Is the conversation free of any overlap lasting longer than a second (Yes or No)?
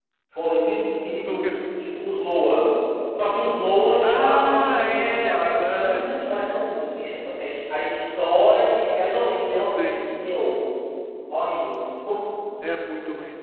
No